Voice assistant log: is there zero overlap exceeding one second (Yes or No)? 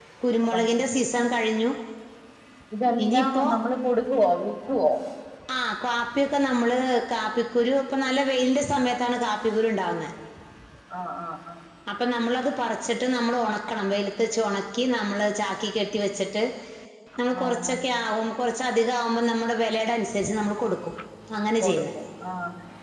Yes